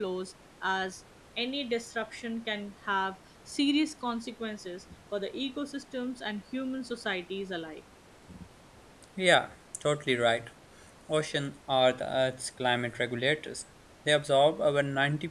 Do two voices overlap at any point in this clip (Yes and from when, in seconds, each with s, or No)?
No